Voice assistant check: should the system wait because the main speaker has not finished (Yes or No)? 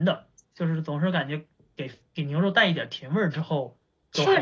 No